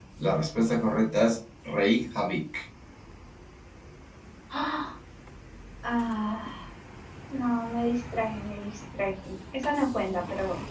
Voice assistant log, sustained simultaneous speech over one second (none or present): none